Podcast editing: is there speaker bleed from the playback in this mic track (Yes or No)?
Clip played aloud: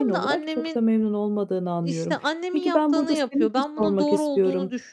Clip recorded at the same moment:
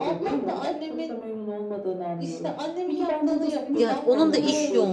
Yes